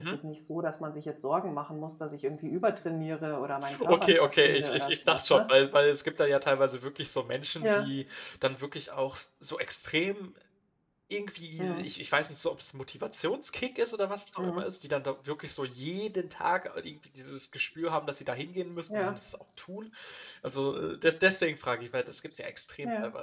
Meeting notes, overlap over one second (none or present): present